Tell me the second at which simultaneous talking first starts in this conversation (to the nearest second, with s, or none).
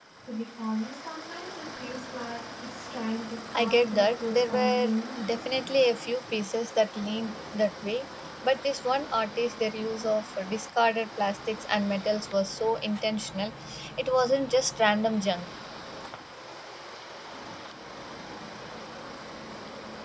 4 s